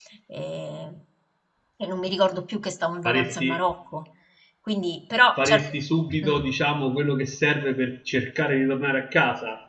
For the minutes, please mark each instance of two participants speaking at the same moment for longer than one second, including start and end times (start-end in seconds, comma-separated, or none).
none